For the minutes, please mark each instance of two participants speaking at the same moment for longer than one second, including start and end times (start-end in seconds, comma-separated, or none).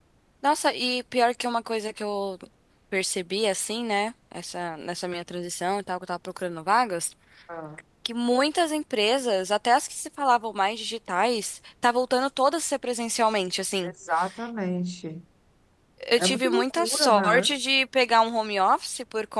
16.2-17.5